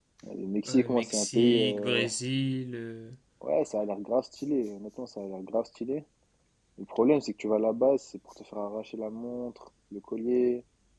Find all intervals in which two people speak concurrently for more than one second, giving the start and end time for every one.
0.7-2.1

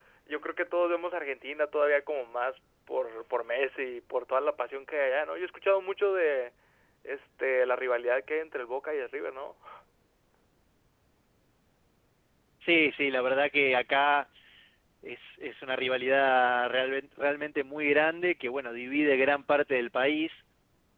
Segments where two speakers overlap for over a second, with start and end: none

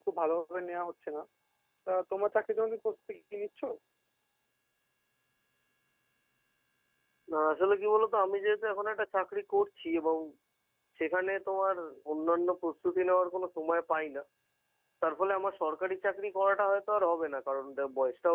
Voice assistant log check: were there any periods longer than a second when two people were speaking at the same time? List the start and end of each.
none

